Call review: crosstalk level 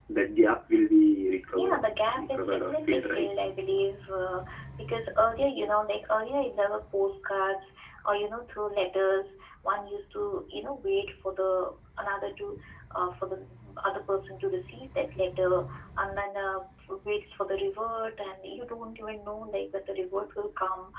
present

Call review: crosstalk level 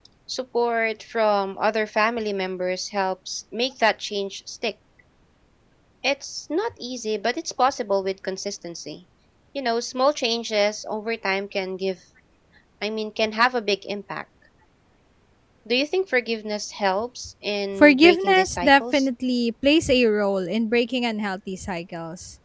present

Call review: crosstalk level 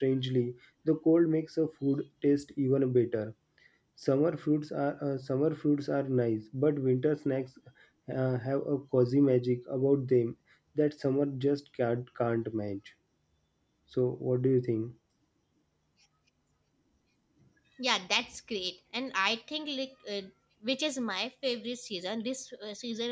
none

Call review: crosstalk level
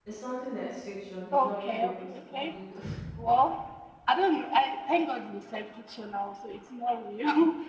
present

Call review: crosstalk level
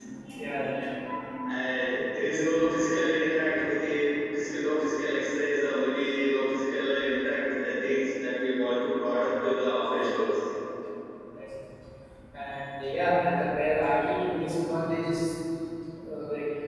none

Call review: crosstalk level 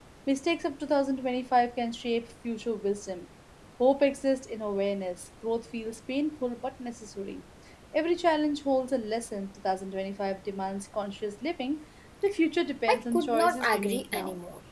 present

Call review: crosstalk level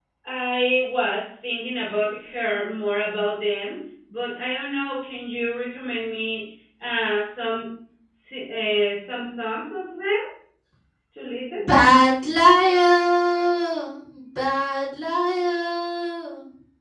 none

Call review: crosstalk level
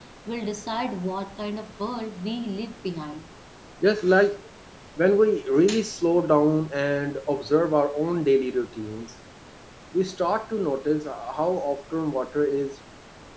none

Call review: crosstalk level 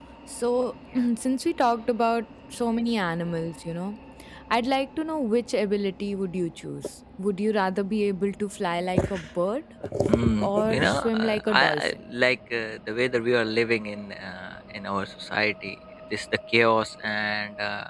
present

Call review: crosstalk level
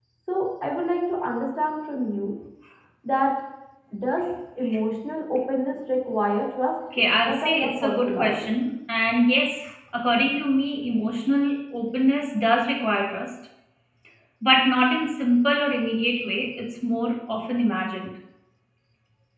present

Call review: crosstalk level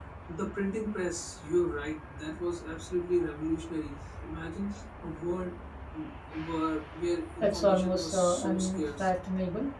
present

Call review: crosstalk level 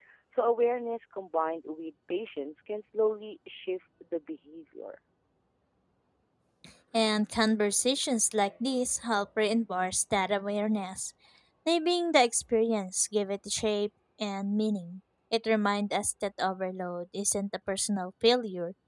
none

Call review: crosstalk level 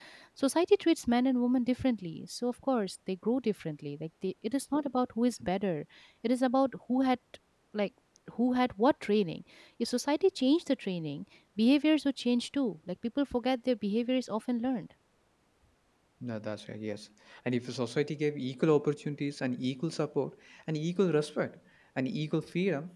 none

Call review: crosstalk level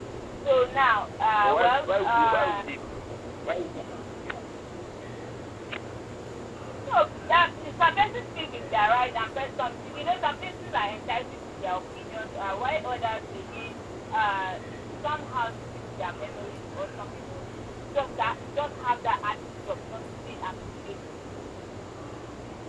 present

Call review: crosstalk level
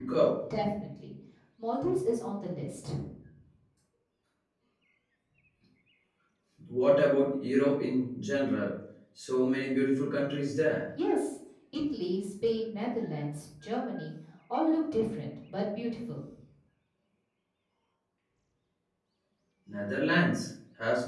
none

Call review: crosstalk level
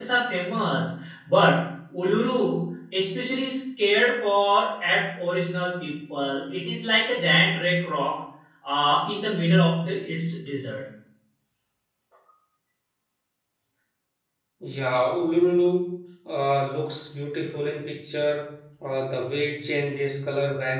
none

